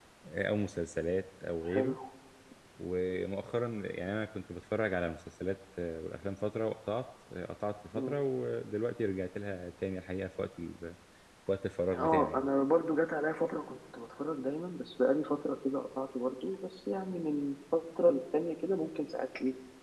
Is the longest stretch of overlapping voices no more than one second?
Yes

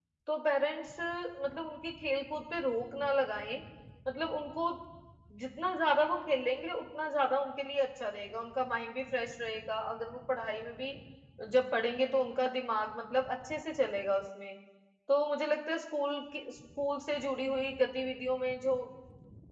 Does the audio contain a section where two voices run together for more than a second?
No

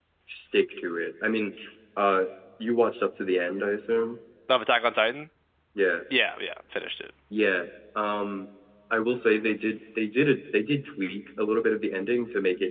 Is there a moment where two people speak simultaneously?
No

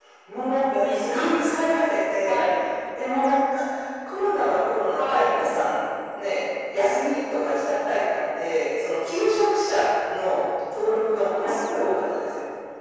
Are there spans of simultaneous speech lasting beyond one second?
No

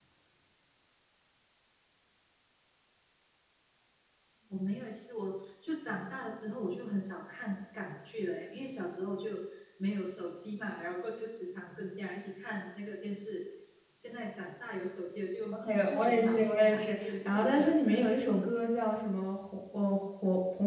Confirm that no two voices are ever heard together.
No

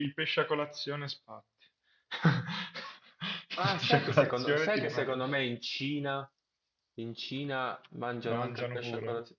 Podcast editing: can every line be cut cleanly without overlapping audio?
No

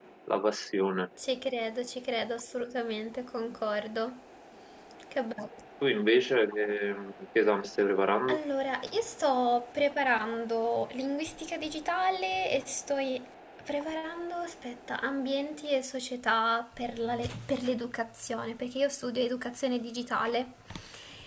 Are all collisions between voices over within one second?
Yes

